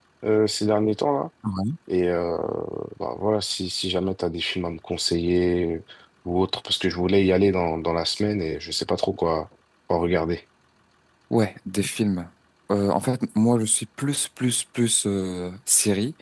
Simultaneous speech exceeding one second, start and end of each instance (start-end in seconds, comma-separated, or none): none